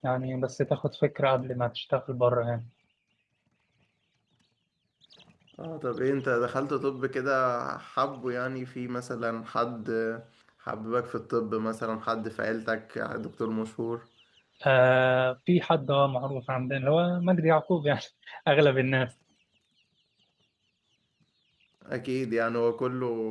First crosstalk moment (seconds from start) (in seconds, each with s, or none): none